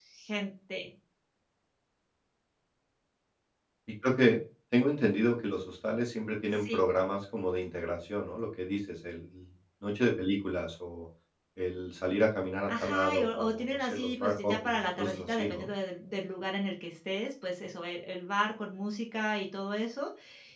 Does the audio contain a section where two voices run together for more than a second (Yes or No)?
Yes